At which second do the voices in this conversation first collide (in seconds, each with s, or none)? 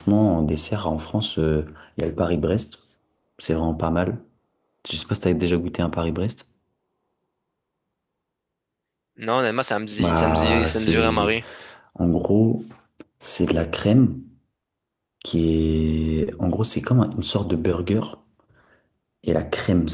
10.0 s